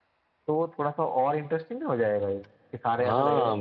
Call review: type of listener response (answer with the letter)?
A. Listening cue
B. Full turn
B